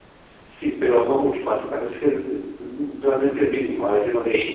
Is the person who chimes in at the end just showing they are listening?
No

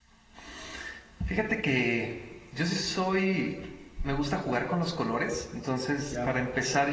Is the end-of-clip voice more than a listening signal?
No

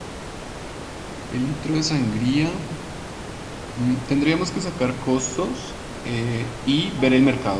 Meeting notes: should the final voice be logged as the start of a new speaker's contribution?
No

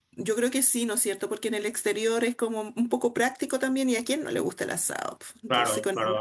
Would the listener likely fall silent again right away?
No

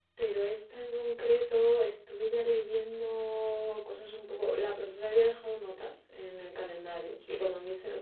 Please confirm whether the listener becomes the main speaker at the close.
No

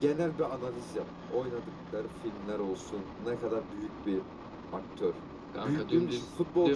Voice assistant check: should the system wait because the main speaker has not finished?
No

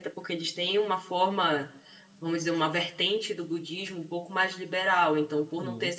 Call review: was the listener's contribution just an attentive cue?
Yes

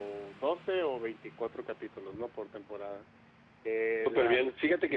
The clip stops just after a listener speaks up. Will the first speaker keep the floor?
No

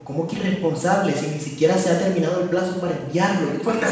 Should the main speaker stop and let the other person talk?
Yes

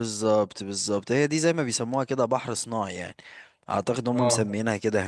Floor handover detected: No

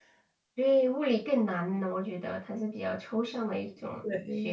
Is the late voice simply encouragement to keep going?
No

